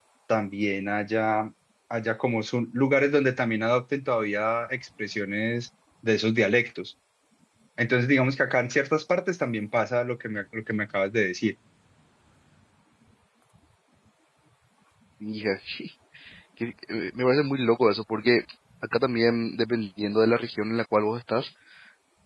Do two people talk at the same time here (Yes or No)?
No